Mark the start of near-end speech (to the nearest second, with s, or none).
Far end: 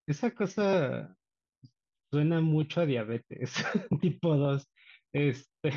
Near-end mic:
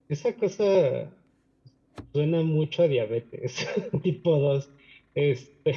none